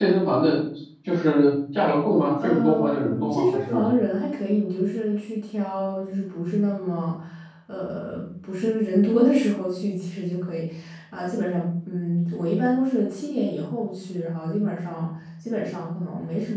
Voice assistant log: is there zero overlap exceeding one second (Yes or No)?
No